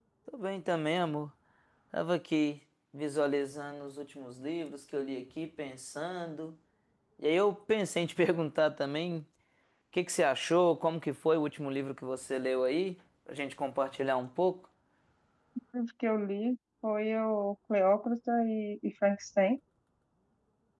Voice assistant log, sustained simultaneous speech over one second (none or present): none